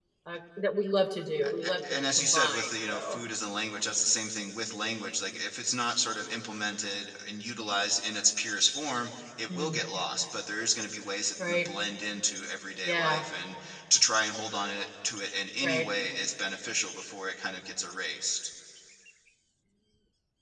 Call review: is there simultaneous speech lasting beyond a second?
Yes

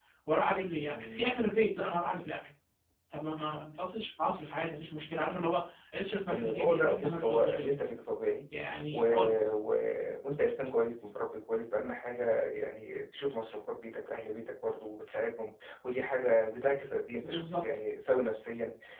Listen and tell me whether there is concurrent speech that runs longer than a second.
Yes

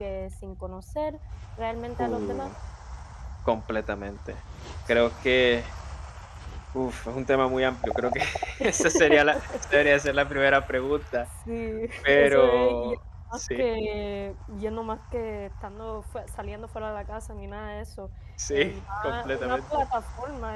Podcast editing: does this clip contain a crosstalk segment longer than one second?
Yes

